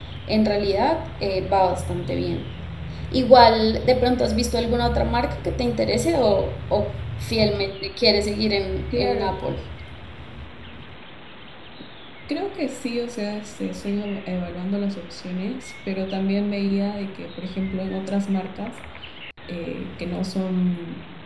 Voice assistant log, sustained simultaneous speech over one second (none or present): none